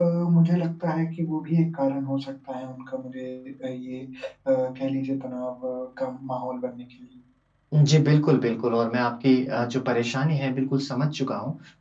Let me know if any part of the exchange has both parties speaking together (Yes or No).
No